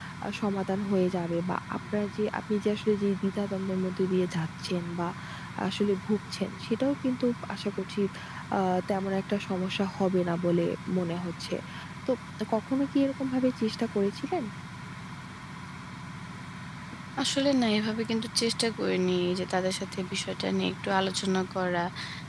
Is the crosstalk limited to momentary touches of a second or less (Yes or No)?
Yes